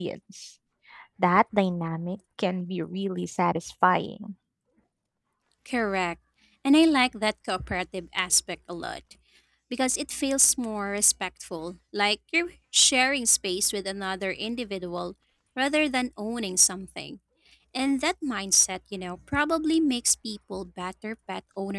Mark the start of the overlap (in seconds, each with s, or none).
none